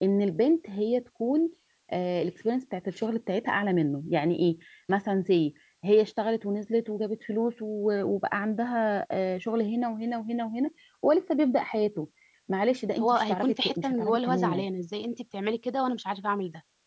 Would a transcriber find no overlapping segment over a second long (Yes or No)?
No